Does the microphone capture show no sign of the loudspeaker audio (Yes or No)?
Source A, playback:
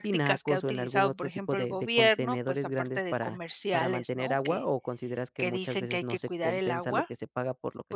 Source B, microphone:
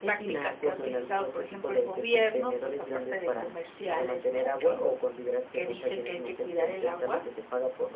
No